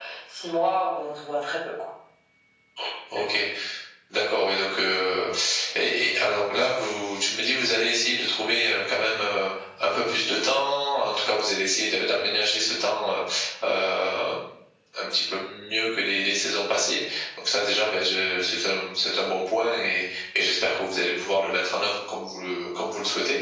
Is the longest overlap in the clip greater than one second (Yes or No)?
No